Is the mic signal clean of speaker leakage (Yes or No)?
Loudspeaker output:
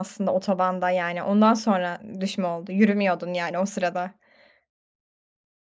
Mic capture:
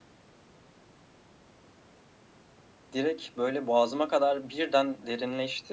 Yes